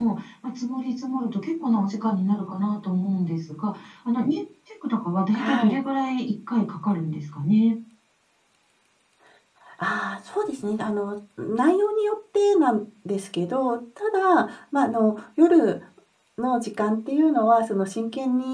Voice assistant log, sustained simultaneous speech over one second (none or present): none